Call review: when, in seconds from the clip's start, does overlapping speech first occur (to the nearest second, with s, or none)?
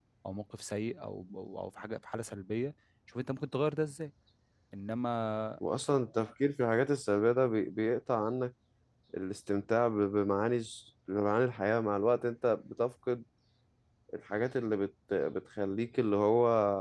none